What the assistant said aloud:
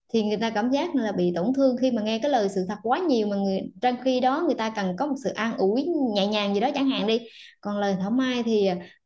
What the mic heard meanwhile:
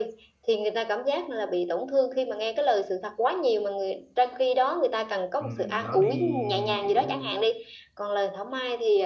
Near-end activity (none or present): present